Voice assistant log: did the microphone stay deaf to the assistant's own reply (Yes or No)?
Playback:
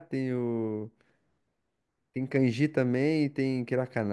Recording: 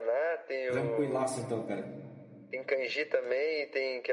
No